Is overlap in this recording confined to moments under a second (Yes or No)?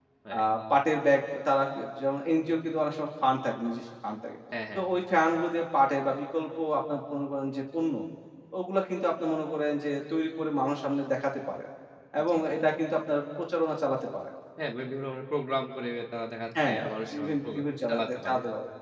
No